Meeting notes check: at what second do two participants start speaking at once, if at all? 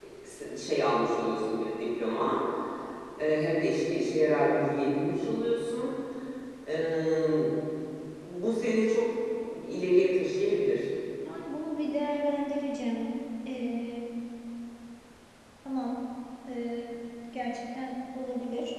none

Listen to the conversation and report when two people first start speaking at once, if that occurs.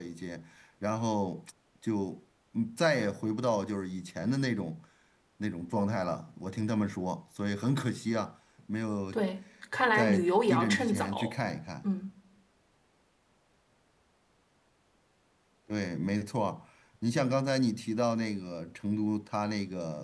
9.9 s

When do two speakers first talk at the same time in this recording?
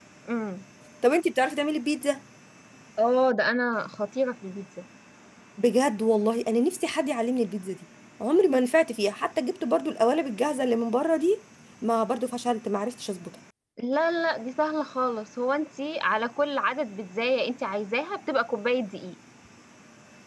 none

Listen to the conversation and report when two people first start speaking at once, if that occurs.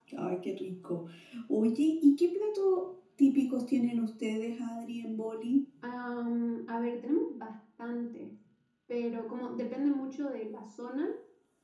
none

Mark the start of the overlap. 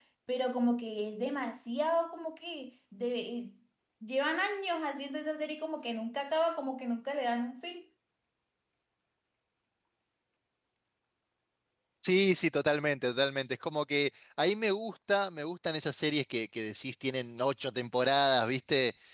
none

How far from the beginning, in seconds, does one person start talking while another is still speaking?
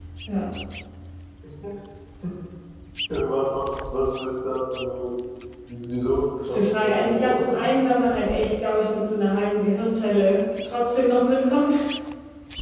6.5 s

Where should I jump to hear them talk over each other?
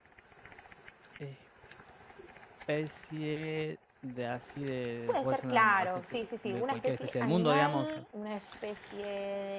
5.1 s

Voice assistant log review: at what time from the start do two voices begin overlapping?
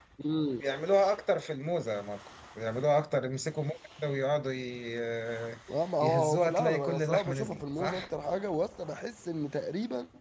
6.0 s

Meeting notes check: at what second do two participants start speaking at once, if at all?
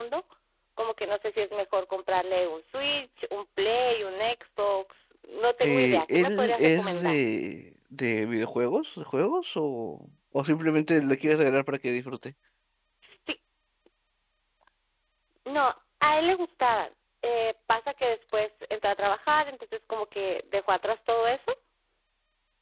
5.6 s

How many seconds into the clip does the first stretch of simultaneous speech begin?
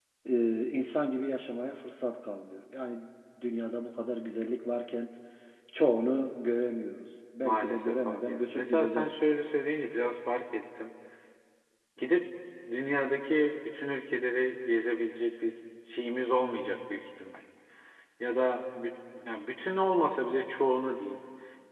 7.4 s

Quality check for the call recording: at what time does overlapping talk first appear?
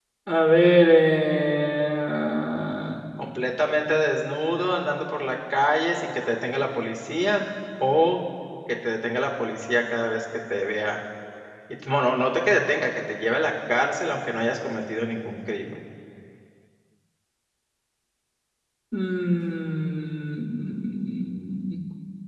none

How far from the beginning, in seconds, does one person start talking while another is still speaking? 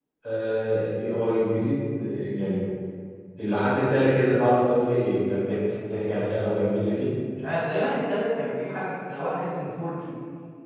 none

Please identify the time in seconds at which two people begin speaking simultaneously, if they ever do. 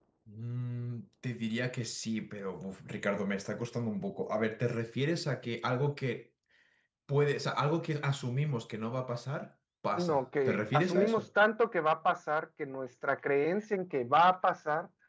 9.9 s

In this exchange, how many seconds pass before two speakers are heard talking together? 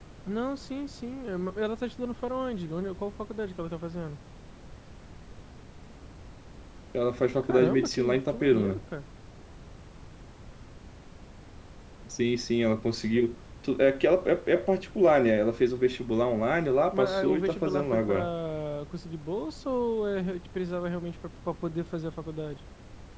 7.4 s

